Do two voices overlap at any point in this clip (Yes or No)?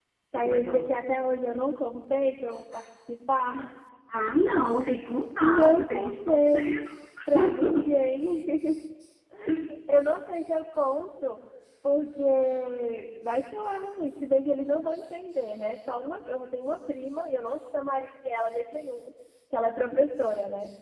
Yes